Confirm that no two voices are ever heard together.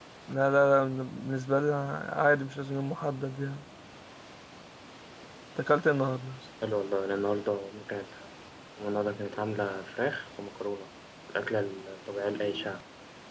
Yes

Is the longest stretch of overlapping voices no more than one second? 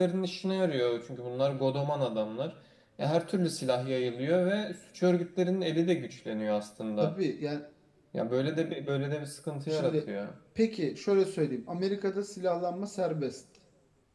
Yes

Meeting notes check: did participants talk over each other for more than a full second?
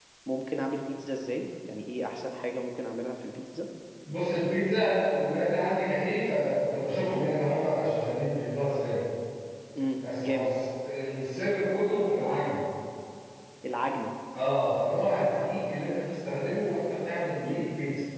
No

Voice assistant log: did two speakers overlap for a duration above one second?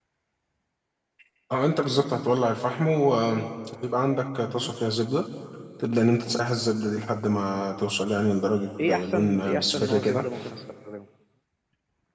Yes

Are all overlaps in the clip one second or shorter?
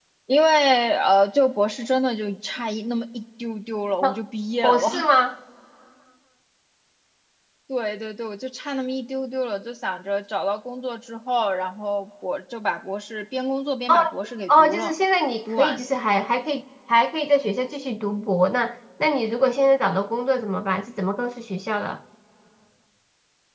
Yes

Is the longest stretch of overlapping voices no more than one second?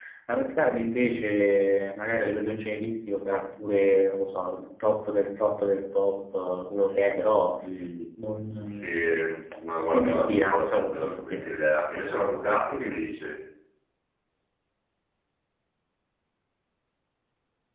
No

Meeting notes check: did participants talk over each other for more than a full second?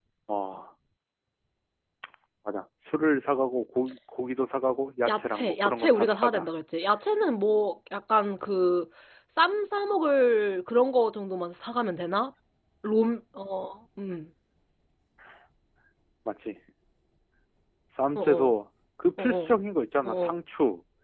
Yes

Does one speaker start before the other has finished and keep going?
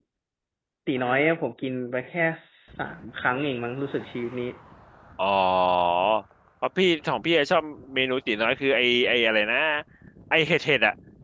No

